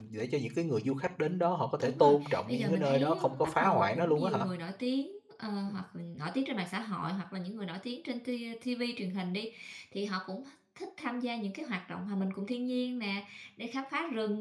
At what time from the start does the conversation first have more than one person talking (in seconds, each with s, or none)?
1.8 s